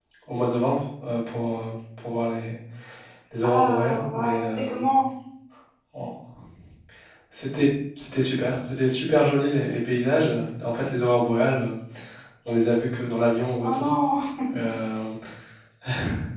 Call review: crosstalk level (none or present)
present